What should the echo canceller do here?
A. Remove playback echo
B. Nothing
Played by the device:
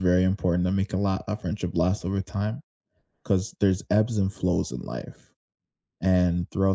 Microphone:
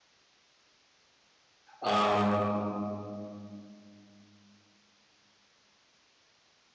B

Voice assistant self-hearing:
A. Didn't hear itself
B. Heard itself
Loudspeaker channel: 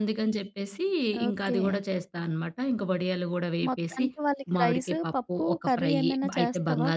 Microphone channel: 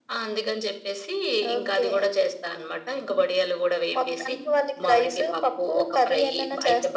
B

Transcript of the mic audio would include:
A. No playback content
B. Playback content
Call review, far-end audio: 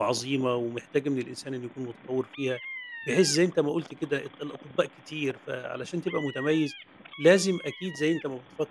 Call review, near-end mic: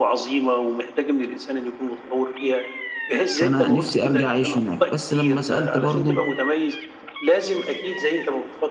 B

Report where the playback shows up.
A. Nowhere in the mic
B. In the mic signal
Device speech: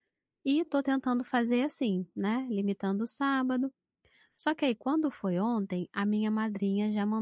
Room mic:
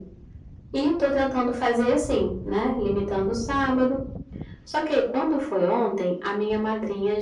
B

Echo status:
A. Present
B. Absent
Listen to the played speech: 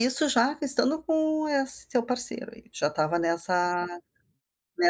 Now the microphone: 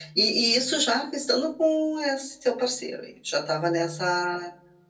A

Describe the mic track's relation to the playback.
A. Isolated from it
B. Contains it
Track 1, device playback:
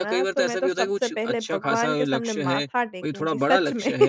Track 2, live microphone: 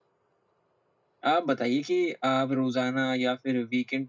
A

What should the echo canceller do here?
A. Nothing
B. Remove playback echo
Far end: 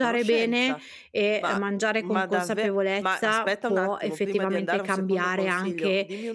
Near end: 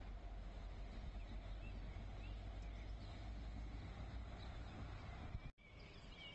A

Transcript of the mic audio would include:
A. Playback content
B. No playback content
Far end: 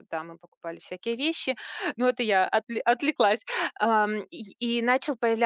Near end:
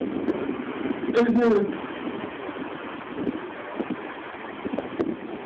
B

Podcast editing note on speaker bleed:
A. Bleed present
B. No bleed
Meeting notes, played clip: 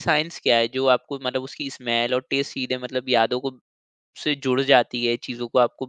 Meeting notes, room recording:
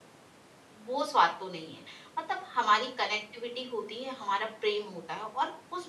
B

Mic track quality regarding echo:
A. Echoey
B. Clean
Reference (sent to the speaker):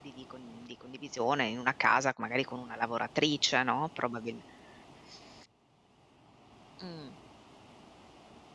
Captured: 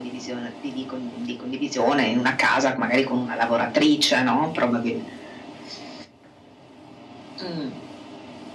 A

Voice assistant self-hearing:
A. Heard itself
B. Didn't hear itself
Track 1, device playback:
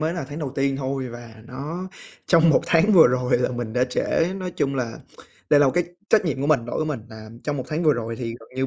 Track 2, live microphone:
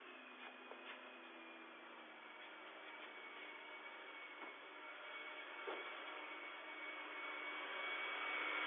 B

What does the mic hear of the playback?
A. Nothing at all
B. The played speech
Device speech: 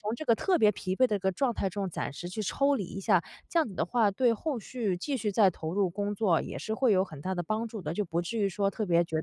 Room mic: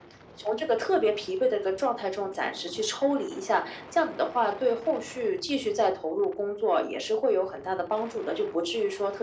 B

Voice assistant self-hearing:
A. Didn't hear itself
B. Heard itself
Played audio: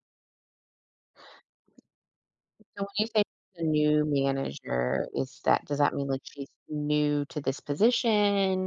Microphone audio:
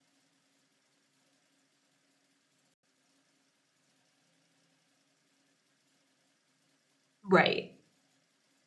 A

